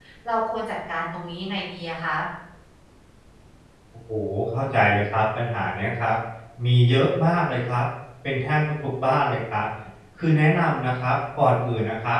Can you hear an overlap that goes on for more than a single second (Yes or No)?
No